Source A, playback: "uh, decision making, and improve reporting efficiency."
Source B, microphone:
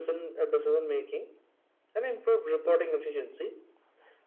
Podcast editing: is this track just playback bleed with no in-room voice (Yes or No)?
Yes